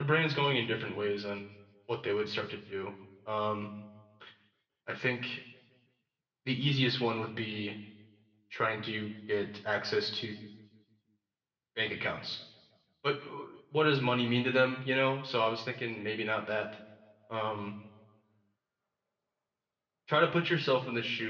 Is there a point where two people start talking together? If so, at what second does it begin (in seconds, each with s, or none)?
none